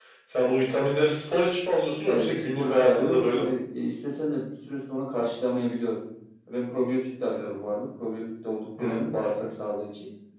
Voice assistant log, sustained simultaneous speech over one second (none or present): present